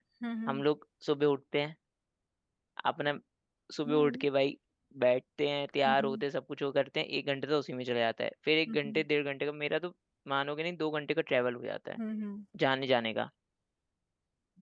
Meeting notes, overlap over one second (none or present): none